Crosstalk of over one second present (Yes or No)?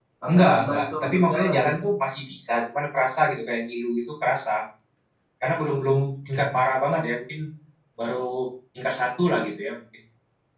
Yes